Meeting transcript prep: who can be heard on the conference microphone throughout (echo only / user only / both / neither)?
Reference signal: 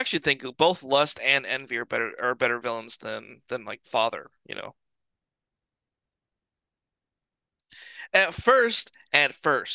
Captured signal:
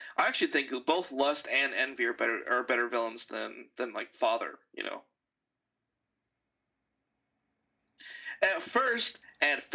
echo only